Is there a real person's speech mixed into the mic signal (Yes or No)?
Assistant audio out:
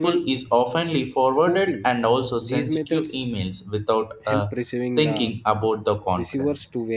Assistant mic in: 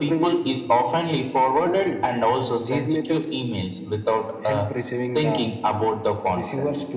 No